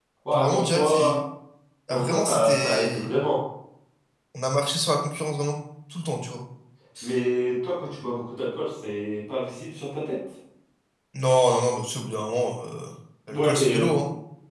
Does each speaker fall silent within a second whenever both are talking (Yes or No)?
No